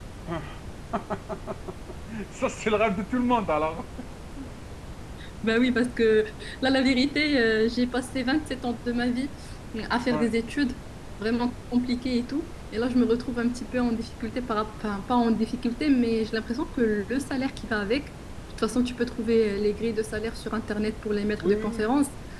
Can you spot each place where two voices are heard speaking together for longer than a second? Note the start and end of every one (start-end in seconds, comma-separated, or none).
none